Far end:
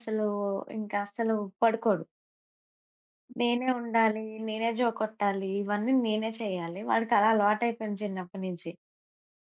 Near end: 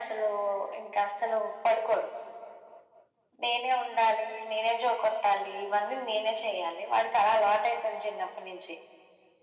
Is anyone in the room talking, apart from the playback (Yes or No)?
No